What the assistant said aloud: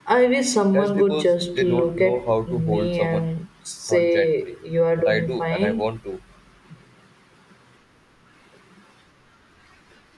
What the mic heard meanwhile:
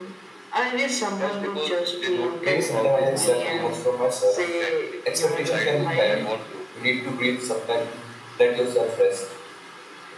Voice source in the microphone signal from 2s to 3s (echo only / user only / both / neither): both